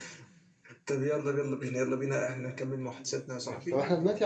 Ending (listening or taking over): taking over